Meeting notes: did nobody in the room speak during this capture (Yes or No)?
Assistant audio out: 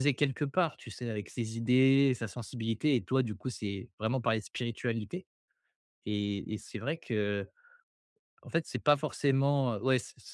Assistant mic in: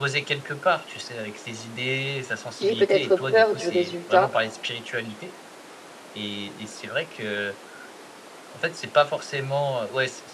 No